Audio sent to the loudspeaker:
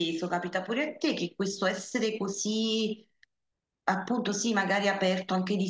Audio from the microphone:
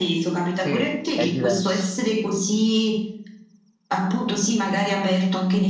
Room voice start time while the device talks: 0.5 s

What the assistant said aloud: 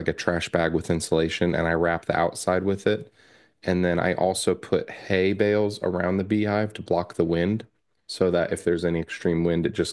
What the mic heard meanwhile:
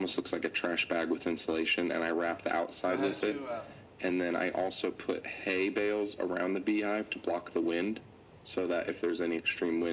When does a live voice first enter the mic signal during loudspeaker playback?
2.1 s

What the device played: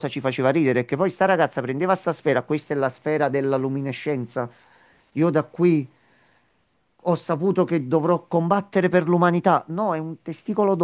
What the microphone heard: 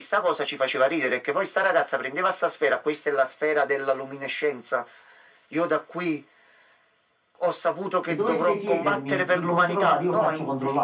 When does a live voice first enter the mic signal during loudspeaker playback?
8.0 s

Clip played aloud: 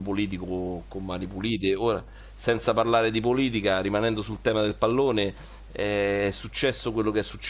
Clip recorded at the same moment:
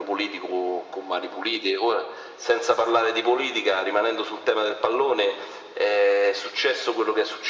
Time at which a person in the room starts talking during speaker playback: none

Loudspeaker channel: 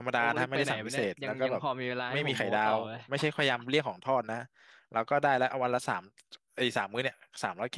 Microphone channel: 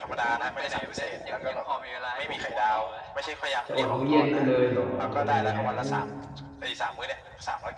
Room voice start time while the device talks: 3.7 s

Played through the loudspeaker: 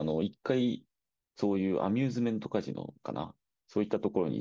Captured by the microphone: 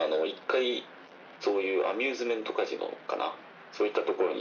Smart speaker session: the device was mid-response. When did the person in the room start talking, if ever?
none

